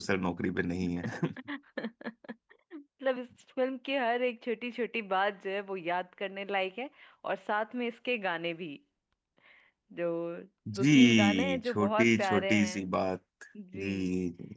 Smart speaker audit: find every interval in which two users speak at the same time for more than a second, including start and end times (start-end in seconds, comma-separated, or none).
10.8-12.9